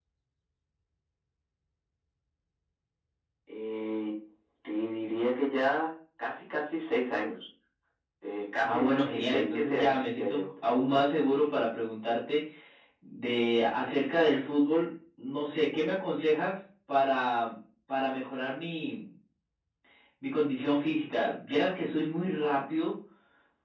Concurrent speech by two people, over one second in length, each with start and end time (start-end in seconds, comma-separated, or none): 8.6-10.4